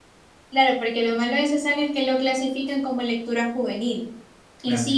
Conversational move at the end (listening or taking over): listening